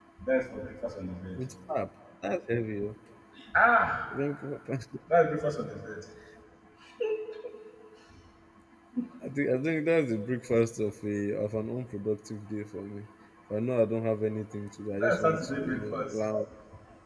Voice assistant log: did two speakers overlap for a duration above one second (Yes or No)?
Yes